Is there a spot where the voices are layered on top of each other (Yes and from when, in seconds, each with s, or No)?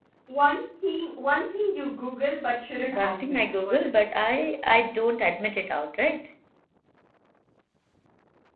Yes, from 2.9 s